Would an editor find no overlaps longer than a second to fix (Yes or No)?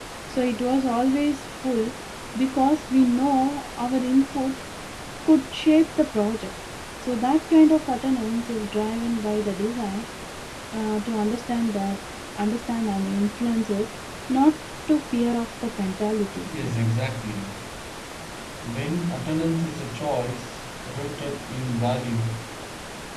Yes